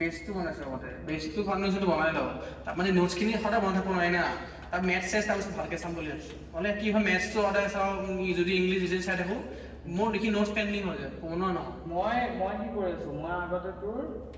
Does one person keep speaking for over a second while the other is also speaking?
No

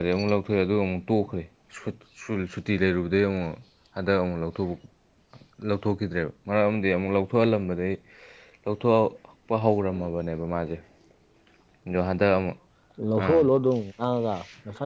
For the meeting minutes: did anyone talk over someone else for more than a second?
No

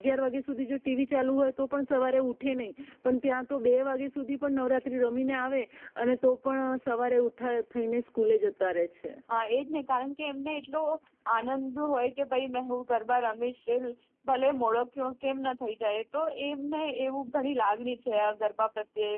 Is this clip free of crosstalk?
Yes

